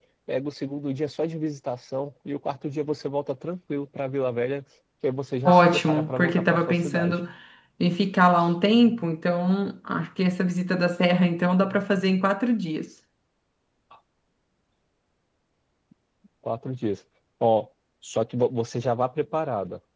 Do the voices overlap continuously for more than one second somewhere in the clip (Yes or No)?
Yes